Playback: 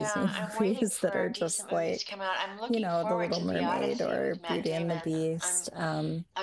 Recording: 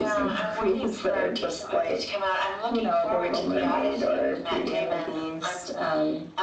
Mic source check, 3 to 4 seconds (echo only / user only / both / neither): echo only